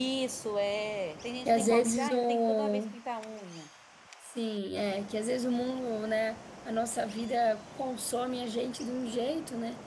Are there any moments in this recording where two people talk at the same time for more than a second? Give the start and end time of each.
1.4-2.8

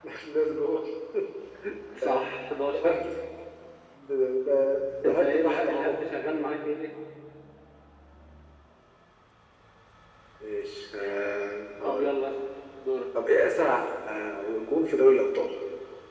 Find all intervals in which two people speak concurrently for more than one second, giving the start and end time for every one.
5.0-6.5

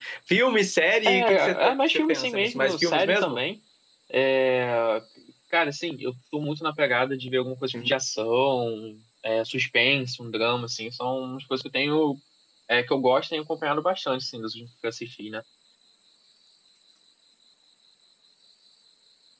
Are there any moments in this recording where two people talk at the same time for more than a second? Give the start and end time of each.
1.1-3.4

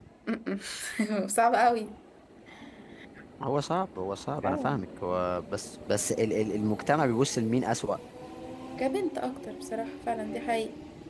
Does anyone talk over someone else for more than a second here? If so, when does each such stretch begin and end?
none

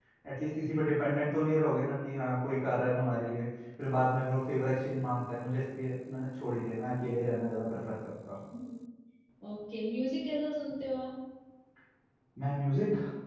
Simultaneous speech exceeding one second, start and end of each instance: none

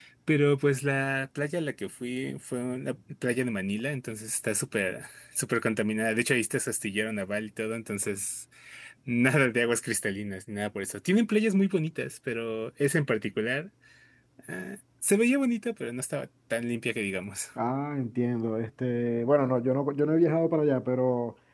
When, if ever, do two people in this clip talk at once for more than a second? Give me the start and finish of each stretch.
none

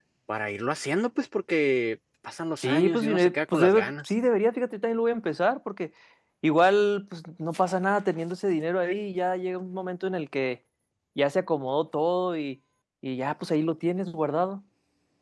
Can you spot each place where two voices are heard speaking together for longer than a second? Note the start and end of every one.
2.6-4.1

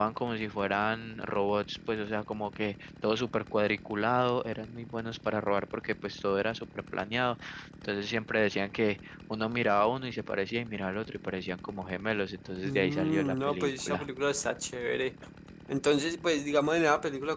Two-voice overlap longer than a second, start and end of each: 12.6-14.0

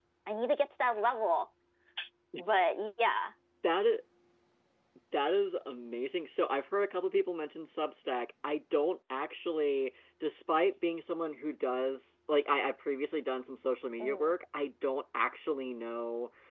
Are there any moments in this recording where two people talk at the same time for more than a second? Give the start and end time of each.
none

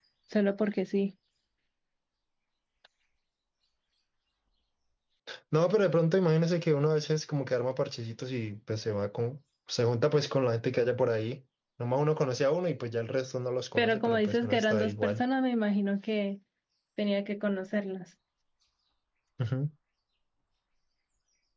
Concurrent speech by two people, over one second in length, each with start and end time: 13.8-15.2

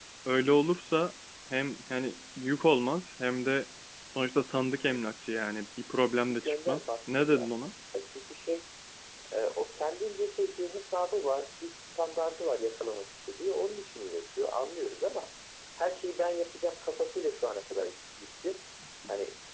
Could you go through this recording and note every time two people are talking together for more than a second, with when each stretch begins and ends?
6.3-7.5

